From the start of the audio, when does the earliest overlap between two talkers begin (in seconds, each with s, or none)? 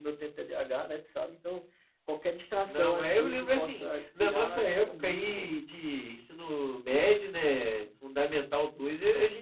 2.7 s